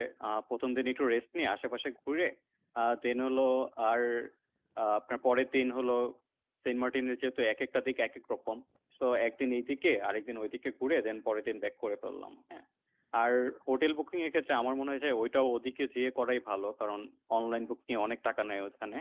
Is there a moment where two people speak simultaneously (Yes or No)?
No